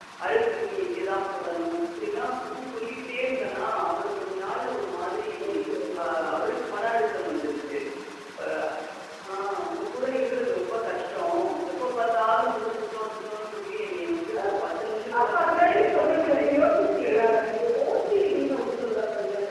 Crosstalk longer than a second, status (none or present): present